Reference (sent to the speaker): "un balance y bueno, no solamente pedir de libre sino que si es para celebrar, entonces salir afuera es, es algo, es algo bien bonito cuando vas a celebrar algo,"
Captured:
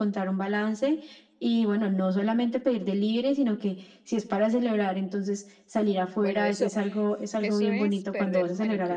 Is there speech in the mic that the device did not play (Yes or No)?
Yes